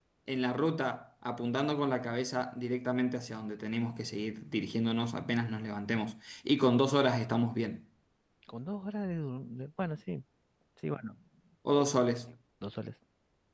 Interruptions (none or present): none